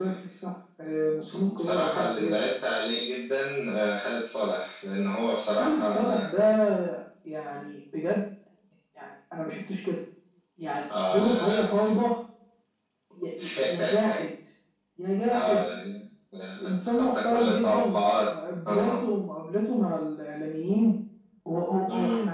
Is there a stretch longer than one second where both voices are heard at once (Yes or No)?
Yes